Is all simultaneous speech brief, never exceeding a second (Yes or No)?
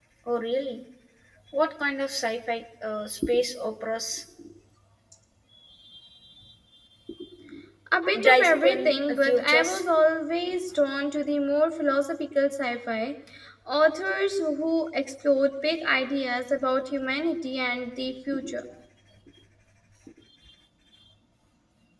No